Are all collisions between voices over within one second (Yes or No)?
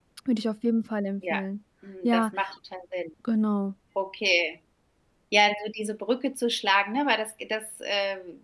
Yes